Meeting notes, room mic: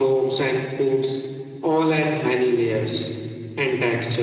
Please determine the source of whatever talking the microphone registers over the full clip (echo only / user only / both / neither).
echo only